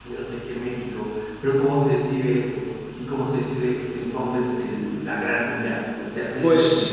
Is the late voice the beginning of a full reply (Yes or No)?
Yes